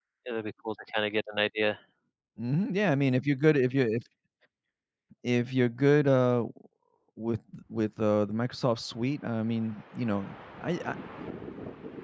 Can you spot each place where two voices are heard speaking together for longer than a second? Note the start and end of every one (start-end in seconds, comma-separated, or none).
none